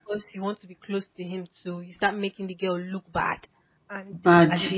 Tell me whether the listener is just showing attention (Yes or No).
Yes